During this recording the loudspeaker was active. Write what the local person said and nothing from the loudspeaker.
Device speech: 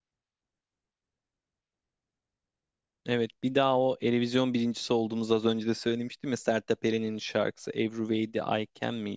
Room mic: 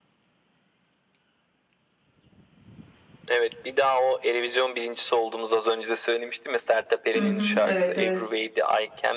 Hı hı. Evet evet.

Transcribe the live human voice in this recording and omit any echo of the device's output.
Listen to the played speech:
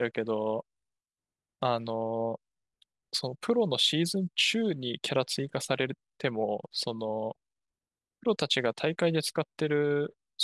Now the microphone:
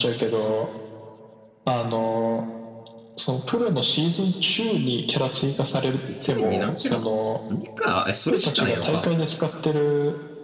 一年に何キャラなの ?2 か。え、それしかないのか。

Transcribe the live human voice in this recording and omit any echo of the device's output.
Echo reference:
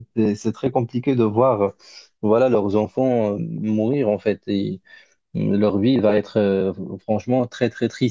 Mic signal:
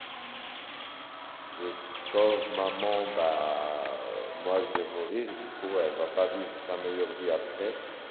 je sauve maman, bah, euh, moi, je vais mourir. Du coup, elle va pas vivre sa meilleure vie après.

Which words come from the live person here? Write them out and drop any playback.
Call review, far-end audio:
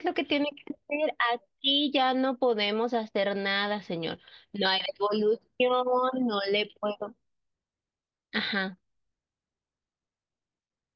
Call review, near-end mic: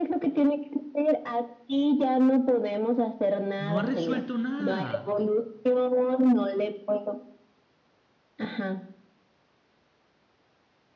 No ha resuelto nada.

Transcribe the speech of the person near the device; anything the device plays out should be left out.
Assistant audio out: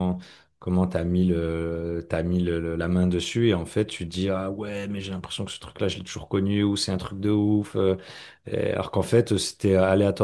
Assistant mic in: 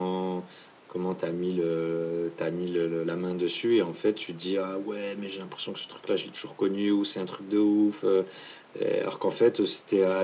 none

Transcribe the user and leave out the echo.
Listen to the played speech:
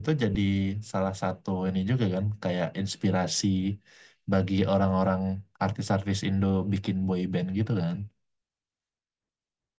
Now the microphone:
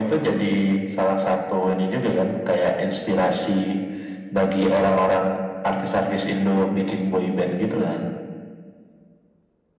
none

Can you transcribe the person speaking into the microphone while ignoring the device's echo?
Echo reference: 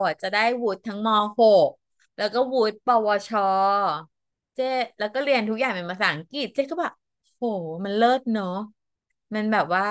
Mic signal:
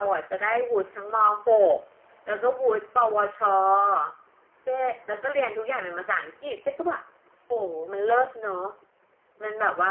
none

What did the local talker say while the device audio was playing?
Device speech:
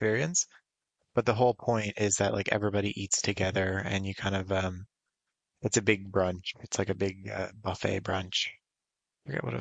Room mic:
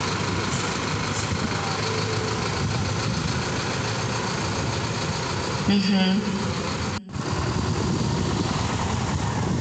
hmm

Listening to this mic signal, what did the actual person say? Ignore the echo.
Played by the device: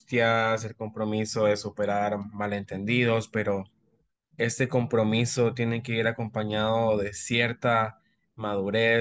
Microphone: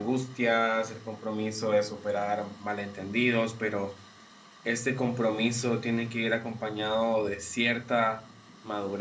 none

